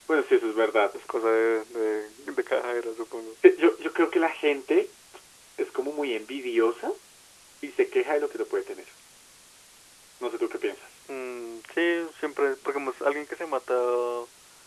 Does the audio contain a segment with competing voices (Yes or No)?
No